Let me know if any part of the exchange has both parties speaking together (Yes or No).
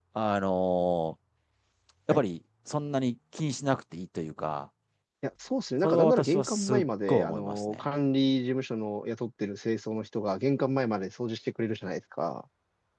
Yes